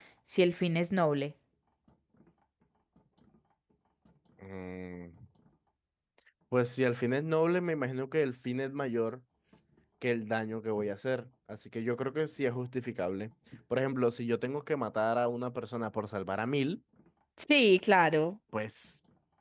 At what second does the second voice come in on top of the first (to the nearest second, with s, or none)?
none